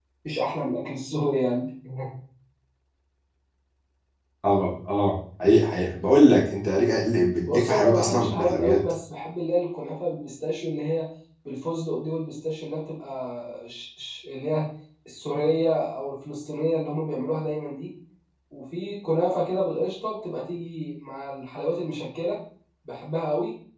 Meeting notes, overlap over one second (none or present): present